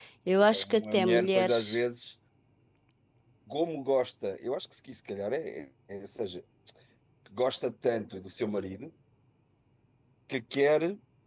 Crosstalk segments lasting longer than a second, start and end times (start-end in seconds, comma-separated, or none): 0.5-1.8